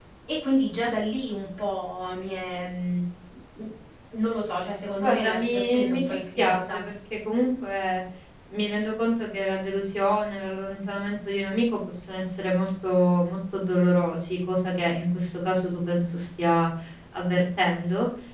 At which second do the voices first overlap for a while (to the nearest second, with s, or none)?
5 s